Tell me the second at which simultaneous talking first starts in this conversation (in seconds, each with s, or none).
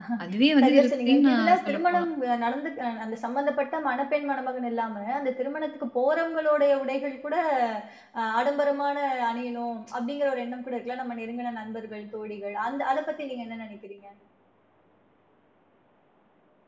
0.6 s